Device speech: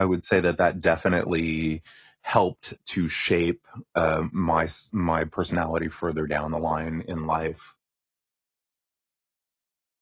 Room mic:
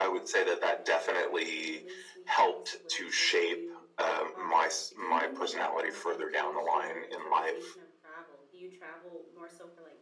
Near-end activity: present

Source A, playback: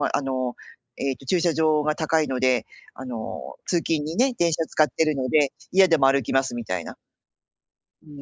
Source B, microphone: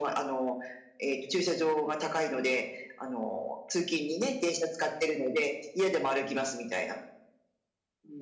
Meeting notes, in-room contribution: none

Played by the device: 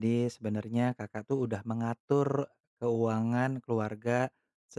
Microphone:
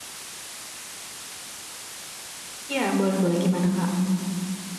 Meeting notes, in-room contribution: present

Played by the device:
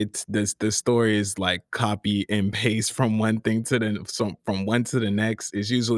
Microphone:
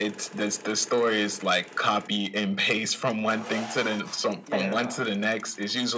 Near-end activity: present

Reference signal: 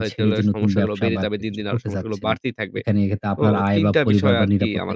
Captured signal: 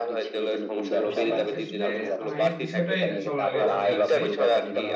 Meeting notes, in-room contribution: present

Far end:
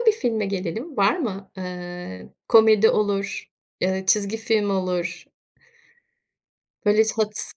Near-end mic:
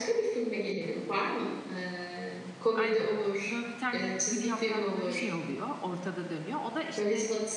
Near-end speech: present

